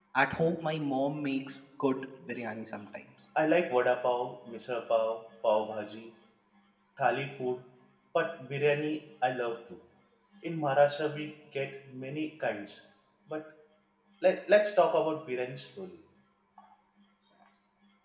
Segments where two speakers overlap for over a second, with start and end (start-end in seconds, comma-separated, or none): none